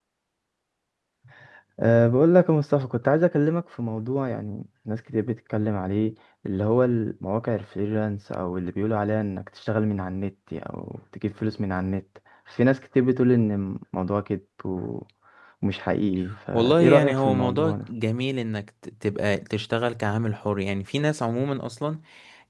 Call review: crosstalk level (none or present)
present